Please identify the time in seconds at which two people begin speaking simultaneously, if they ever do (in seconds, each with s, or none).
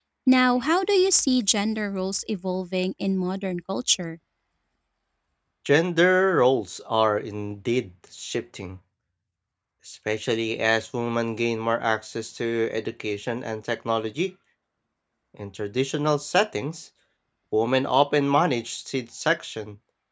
none